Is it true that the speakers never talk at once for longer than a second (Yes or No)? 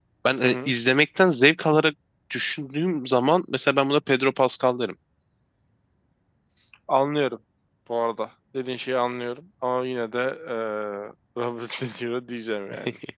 Yes